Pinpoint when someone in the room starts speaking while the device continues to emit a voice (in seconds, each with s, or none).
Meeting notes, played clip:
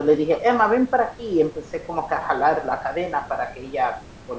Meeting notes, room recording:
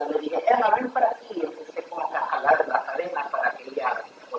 none